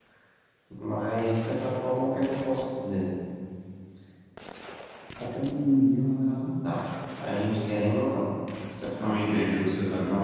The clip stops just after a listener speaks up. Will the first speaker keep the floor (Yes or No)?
No